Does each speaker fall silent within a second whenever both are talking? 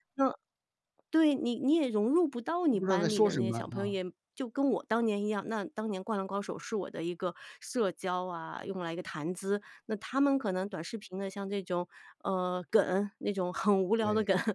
No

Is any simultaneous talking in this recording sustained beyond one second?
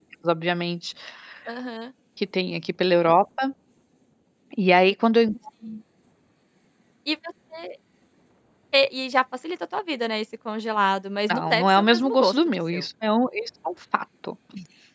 Yes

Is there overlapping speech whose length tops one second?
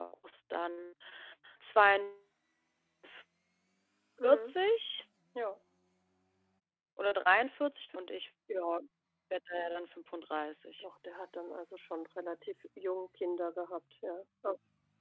No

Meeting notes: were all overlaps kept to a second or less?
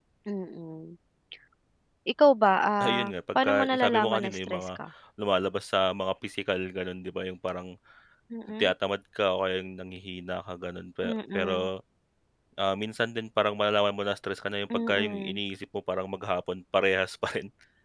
No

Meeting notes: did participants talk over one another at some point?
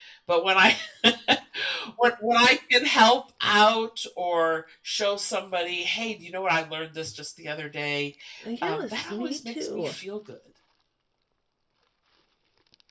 Yes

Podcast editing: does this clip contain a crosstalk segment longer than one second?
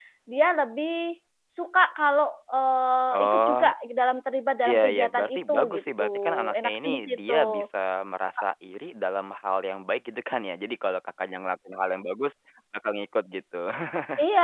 Yes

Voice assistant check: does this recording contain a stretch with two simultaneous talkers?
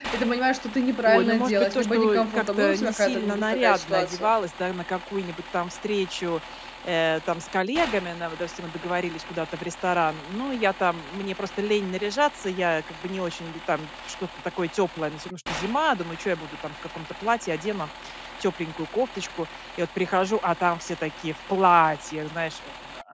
Yes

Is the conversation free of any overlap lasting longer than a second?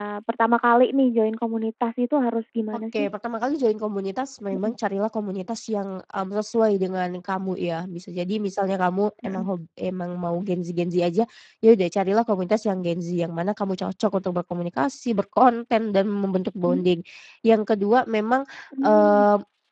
Yes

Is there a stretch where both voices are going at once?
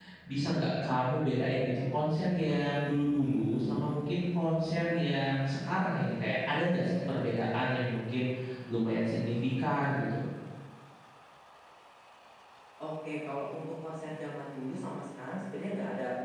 No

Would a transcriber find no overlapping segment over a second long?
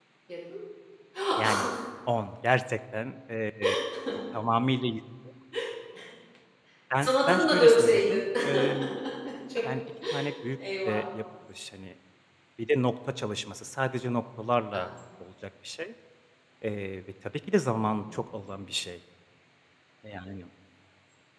No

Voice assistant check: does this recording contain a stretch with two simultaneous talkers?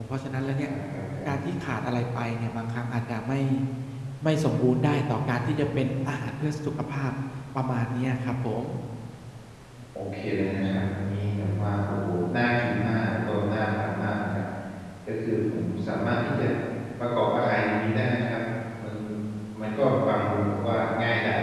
No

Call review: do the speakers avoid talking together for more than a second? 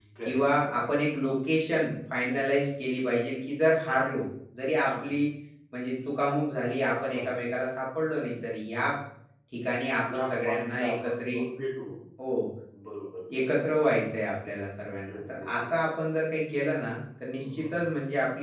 No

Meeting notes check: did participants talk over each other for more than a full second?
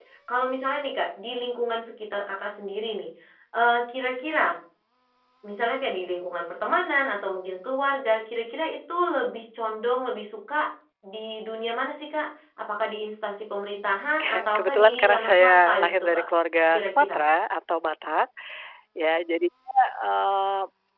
Yes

